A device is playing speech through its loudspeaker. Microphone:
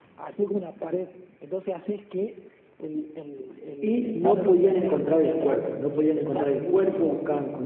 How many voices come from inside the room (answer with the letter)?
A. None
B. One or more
B